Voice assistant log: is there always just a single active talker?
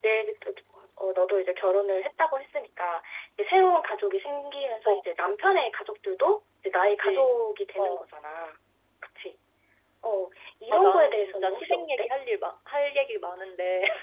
No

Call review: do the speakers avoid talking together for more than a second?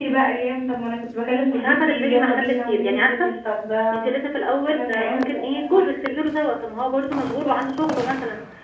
No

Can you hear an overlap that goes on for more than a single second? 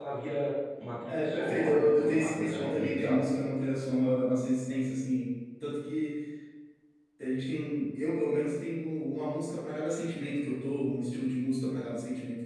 Yes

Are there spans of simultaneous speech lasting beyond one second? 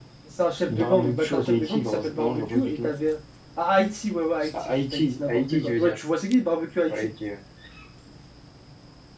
Yes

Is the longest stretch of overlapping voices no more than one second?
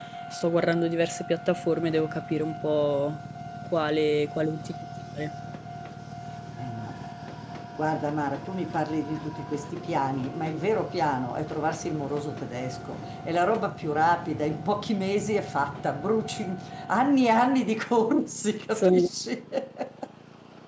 Yes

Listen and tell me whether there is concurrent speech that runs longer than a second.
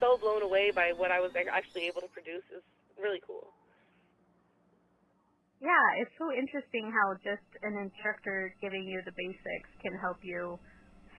No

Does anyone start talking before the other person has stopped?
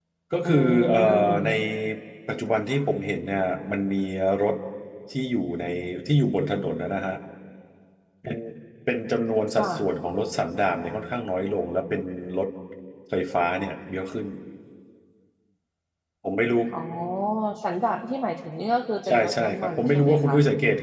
Yes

